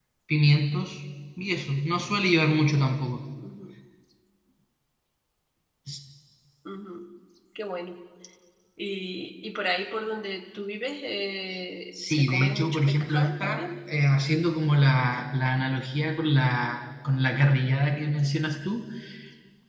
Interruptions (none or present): present